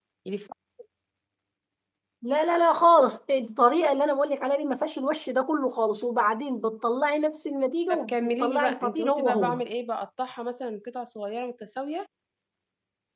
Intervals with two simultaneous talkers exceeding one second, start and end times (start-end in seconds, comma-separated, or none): 7.9-9.6